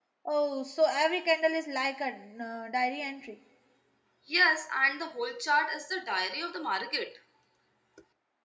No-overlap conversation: Yes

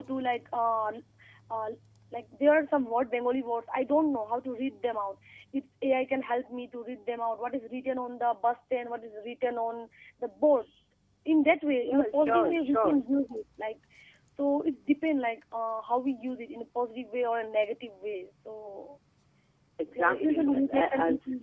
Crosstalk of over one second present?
Yes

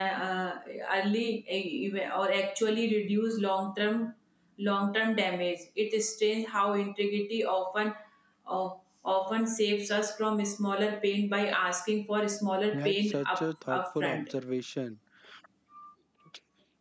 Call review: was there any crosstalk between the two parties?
Yes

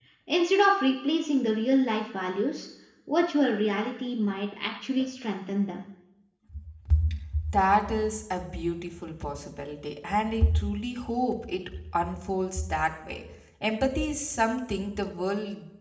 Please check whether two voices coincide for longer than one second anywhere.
No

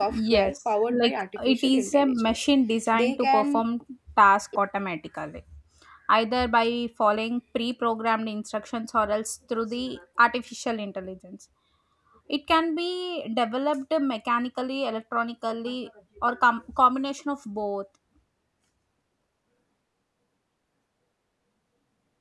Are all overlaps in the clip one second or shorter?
No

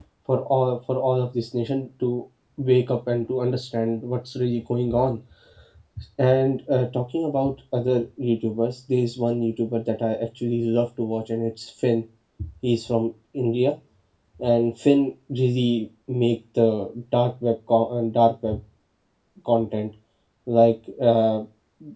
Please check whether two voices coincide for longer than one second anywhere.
No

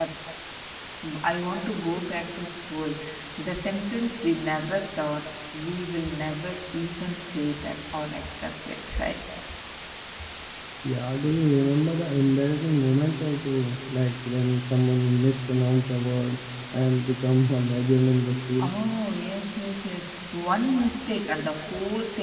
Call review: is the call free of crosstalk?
Yes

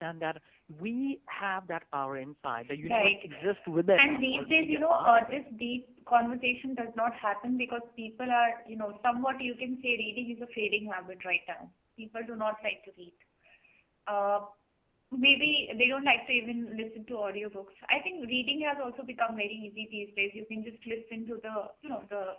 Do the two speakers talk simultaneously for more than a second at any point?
Yes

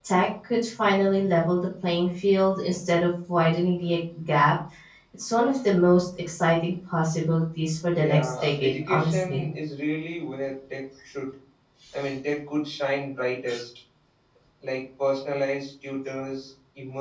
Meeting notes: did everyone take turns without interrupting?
No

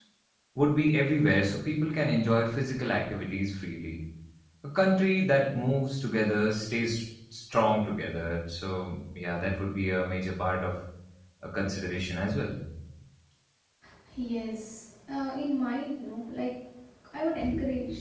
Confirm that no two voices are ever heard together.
Yes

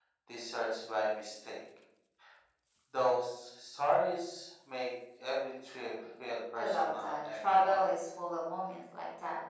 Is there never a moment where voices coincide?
No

